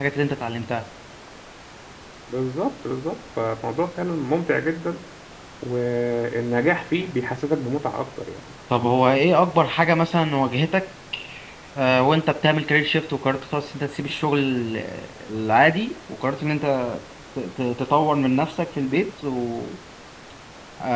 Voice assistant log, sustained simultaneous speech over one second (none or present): none